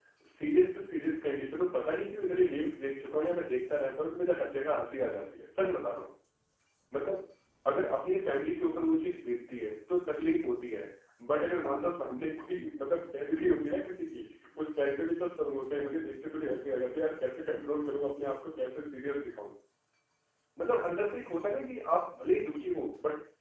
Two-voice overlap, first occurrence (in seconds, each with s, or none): none